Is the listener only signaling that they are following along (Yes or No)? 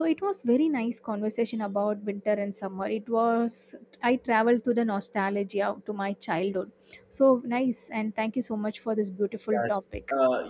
No